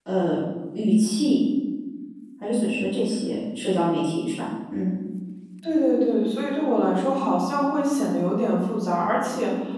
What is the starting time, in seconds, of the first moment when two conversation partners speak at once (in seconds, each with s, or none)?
none